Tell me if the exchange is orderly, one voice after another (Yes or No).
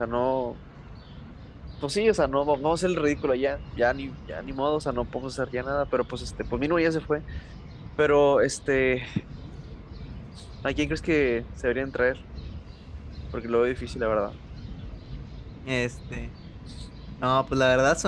Yes